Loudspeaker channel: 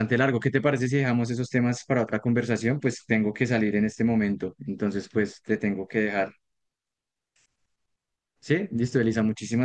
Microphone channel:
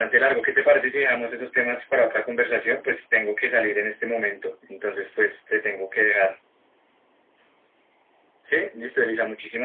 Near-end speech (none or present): none